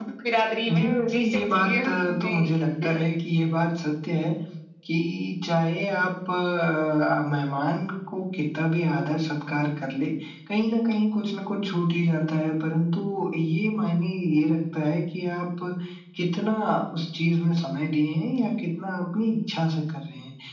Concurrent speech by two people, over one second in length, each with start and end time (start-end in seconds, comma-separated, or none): 0.7-2.5